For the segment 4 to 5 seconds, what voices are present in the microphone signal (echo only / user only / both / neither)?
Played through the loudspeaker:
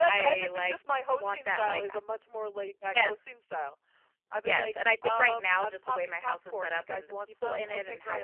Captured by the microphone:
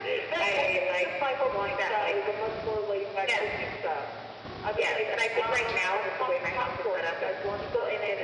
echo only